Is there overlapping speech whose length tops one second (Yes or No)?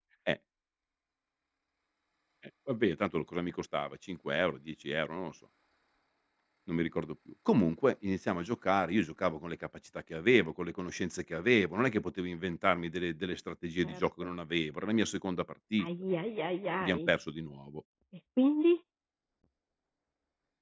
No